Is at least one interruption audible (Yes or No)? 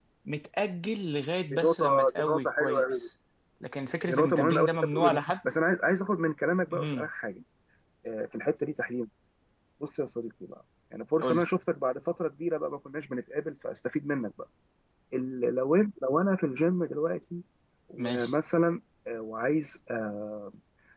Yes